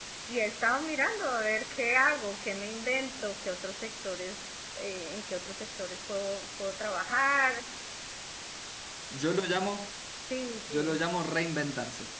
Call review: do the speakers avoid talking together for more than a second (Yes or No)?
Yes